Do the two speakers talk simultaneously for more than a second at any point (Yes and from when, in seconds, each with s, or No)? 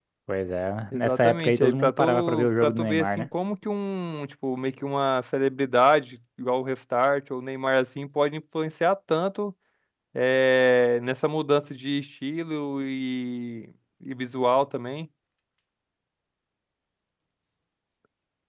Yes, from 0.9 s